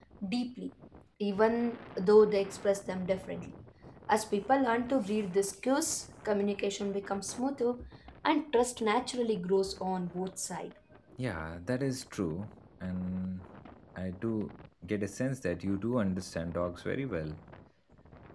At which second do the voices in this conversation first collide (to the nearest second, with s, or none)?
none